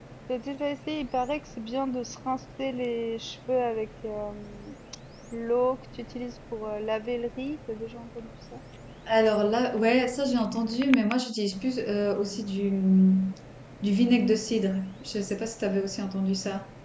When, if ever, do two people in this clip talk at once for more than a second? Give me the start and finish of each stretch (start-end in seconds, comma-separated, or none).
none